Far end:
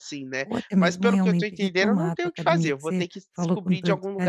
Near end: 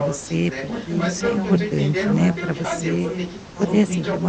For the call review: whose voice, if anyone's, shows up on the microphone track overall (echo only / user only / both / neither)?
both